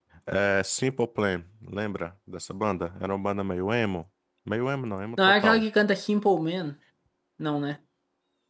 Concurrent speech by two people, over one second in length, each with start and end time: none

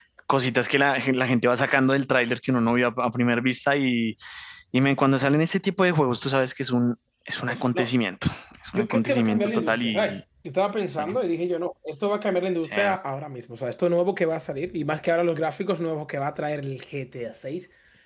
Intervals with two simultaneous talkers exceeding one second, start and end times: 8.7-10.2

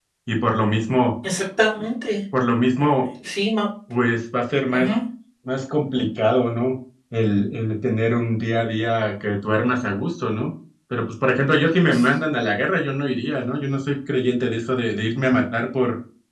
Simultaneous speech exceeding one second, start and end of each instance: none

